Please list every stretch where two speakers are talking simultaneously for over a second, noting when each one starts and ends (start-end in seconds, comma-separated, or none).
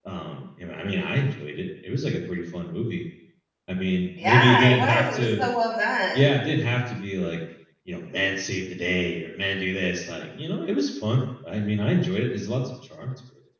4.2-5.5